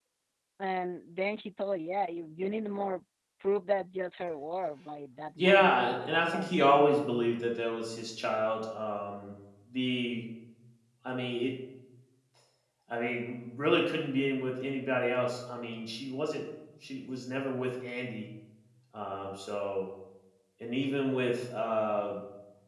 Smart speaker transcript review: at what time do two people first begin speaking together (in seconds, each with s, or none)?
5.4 s